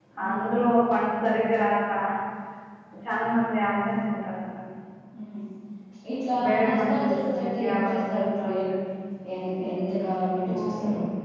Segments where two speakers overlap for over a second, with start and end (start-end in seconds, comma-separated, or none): 6.4-8.4